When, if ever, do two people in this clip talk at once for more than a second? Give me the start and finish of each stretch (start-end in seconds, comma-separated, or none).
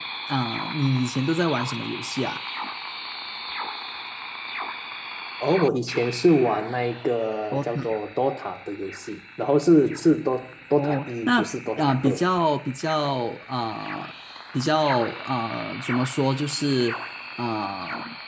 10.8-12.2